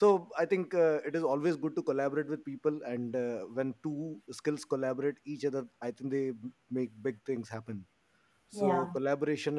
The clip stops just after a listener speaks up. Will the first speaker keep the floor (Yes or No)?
Yes